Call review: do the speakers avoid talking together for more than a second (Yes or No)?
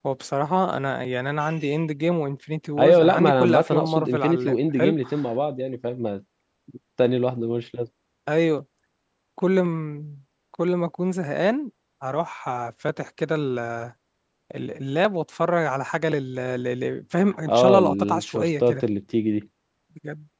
No